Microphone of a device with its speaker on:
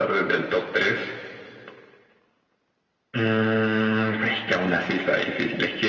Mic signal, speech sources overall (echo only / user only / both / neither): echo only